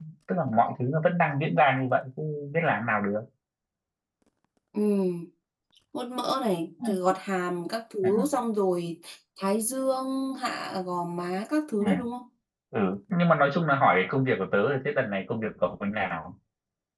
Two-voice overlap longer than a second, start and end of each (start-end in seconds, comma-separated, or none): none